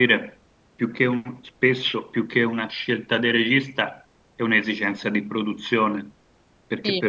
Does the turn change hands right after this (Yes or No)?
No